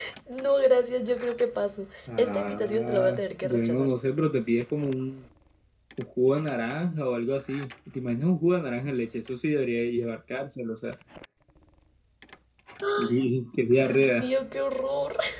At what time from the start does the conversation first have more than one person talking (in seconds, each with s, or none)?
2.2 s